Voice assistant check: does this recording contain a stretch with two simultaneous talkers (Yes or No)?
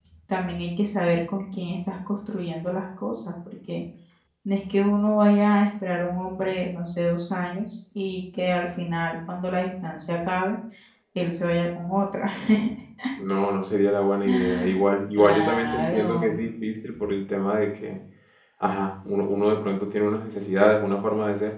Yes